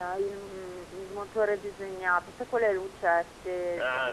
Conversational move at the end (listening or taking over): taking over